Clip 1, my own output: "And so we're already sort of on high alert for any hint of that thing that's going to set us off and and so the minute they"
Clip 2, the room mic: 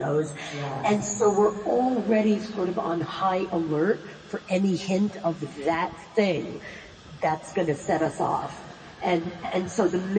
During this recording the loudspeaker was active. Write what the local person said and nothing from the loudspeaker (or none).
Yes.